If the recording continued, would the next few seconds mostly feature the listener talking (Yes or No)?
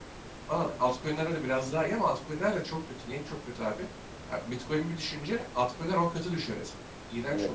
Yes